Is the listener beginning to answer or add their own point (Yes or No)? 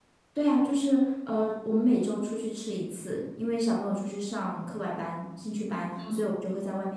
No